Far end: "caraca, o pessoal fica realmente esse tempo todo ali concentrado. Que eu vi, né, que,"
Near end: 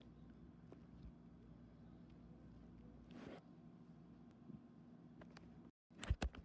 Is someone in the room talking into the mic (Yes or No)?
No